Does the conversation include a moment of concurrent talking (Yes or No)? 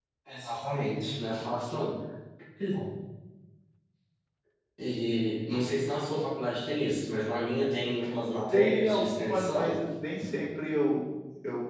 Yes